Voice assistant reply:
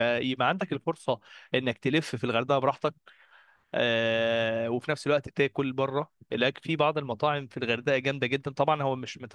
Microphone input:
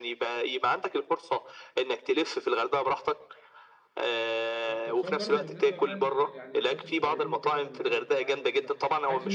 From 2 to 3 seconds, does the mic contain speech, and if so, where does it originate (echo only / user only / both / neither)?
echo only